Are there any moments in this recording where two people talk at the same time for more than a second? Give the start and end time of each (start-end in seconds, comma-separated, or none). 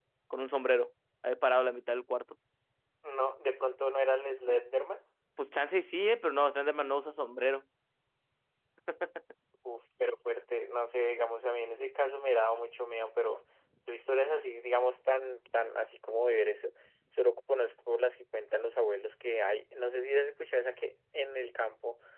none